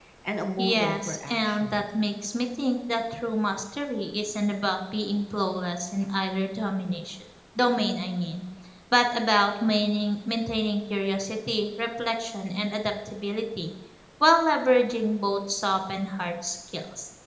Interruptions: present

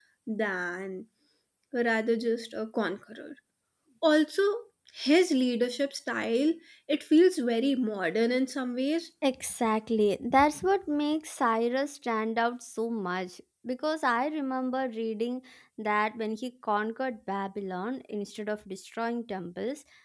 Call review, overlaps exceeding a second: none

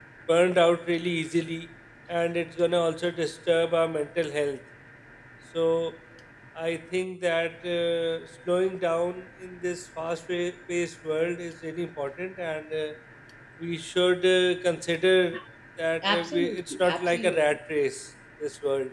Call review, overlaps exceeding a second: present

